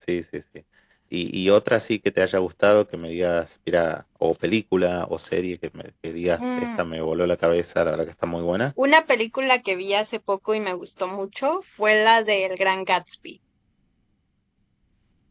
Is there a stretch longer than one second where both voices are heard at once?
No

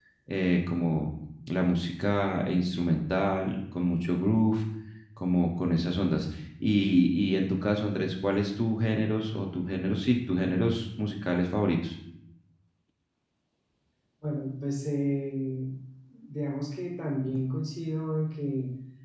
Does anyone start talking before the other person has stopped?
No

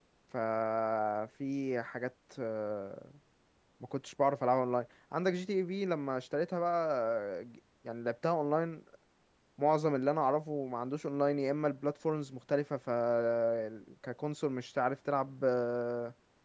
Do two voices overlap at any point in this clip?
No

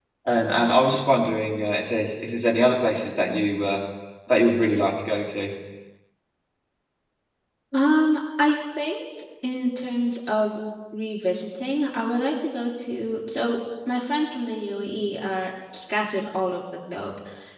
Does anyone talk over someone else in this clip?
No

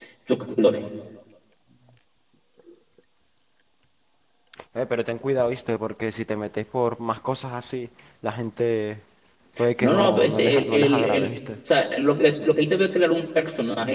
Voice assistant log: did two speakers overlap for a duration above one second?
Yes, from 9.8 s

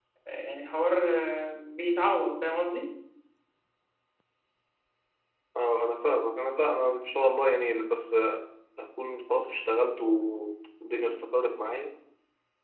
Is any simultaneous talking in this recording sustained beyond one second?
No

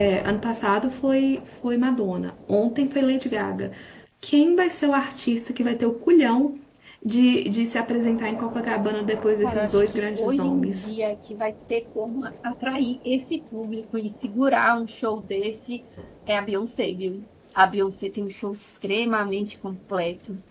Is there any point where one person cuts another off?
Yes, from 9.4 s

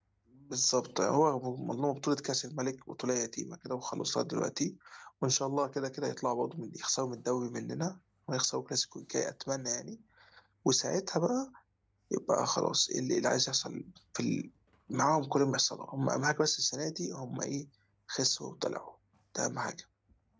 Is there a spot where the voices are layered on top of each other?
No

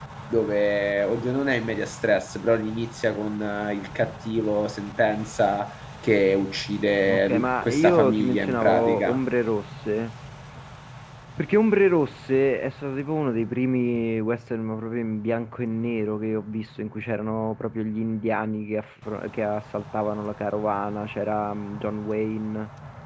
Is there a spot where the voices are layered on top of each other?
Yes, from 7.0 s

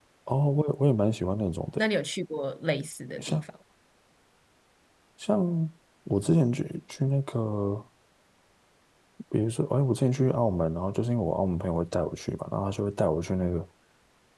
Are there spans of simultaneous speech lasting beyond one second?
No

